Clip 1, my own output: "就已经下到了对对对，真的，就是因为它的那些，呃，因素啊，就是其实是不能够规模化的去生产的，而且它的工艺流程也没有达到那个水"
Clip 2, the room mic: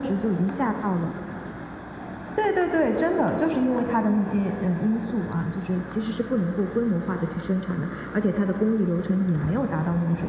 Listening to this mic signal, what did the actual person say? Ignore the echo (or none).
none